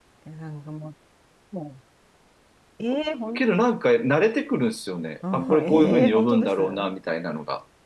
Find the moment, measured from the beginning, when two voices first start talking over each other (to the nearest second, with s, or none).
5 s